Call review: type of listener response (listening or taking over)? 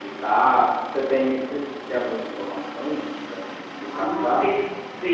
taking over